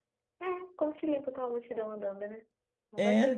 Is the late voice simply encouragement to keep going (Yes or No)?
No